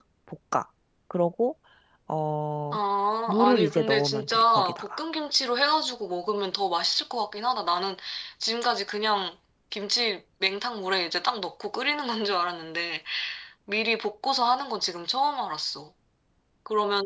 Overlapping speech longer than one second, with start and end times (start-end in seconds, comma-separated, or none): 3.3-5.0